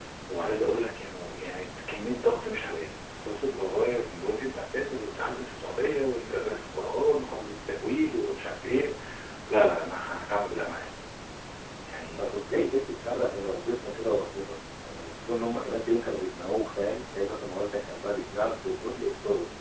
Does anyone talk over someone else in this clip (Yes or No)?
No